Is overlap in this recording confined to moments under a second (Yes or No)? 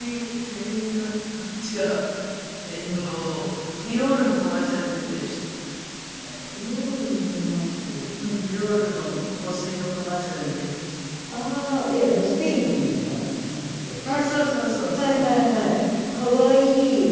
Yes